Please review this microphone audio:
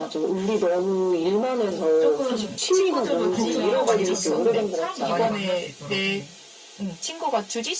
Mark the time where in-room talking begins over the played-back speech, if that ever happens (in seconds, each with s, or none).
1.7 s